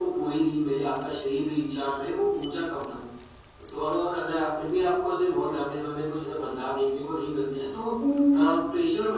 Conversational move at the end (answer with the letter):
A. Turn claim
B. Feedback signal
B